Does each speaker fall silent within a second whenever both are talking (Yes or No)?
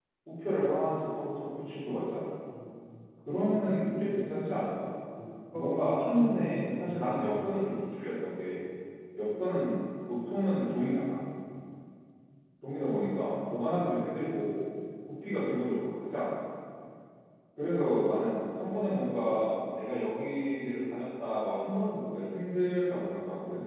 No